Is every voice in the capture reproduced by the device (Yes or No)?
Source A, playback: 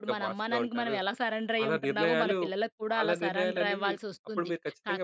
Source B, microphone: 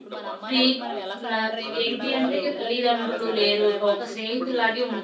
No